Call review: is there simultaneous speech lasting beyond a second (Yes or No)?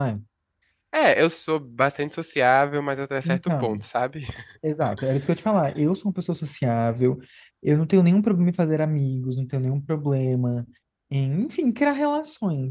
No